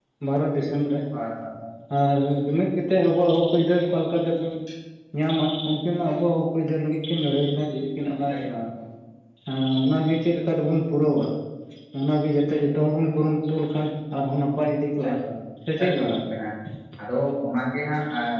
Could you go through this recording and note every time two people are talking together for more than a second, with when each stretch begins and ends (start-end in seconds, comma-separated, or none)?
none